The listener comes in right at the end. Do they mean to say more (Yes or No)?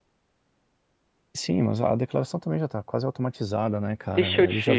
Yes